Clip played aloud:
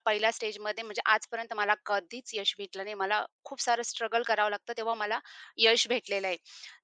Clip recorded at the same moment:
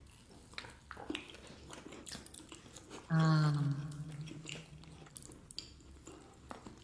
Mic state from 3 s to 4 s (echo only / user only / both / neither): user only